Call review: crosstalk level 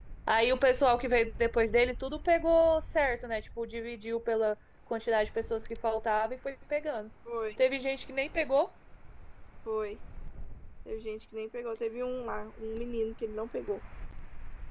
none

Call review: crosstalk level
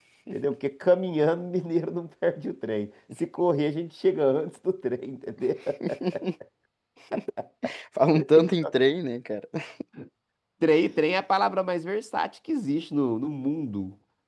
none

